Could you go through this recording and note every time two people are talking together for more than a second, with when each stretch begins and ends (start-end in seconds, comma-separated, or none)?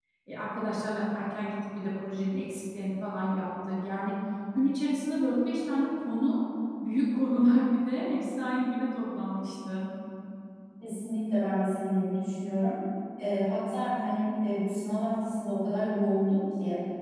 none